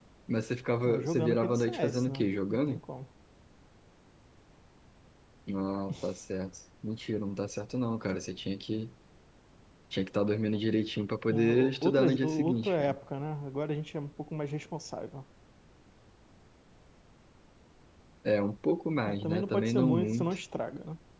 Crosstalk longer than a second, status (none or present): present